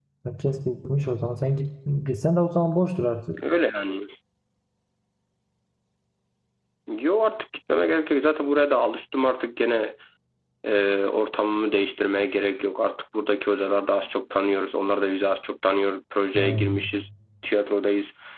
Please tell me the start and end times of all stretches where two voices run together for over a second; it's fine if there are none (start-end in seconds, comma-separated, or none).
none